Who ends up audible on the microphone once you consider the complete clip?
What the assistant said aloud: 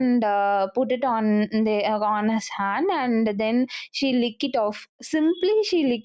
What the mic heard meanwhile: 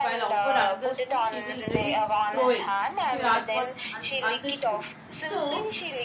both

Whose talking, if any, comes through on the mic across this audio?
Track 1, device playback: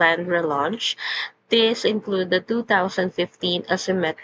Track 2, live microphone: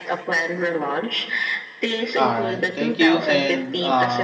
both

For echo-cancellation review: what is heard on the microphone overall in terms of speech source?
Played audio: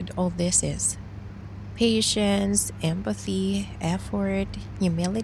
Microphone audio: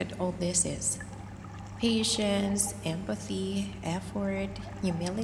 echo only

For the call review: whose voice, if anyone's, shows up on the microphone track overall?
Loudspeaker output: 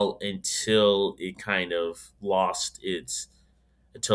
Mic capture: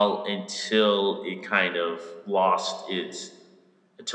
echo only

